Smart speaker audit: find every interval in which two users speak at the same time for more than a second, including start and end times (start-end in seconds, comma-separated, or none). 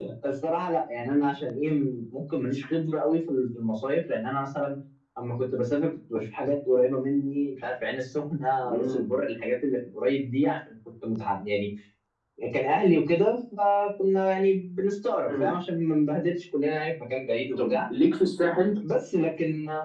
none